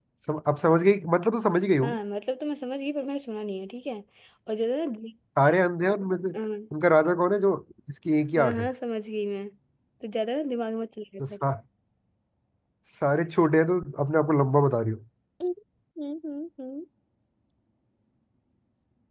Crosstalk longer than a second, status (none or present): none